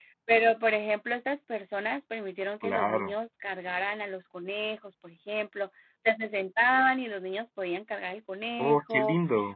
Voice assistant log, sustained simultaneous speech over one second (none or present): none